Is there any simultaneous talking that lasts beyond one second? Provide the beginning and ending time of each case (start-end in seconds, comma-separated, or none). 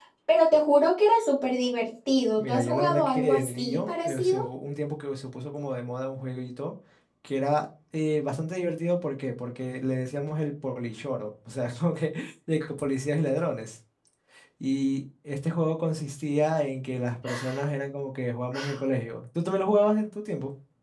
2.4-4.4